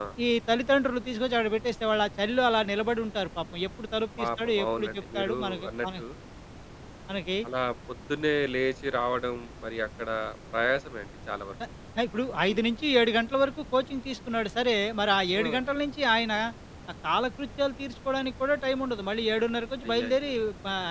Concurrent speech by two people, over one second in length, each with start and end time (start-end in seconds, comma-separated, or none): 4.2-5.9